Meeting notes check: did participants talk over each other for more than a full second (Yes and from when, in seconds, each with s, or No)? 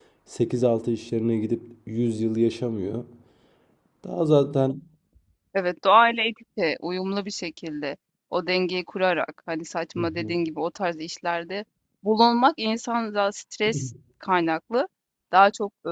No